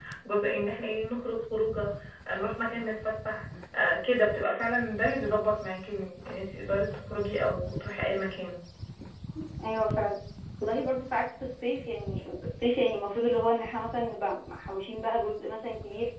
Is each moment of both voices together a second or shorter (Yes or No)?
Yes